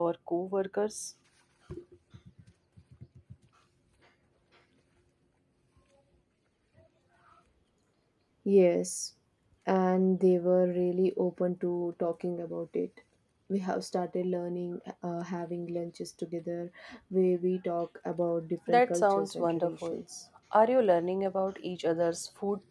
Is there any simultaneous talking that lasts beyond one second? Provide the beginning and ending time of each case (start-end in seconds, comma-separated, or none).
18.7-20.0